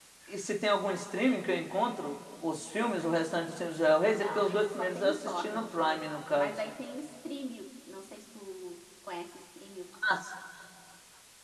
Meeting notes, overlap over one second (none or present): present